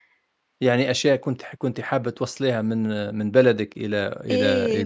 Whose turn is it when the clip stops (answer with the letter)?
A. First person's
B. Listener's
B